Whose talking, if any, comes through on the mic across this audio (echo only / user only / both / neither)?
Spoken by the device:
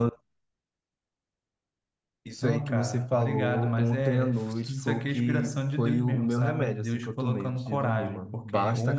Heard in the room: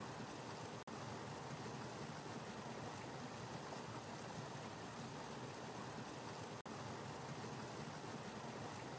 neither